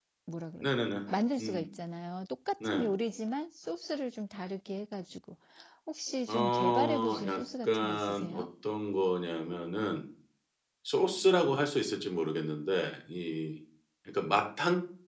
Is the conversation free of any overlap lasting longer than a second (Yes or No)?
No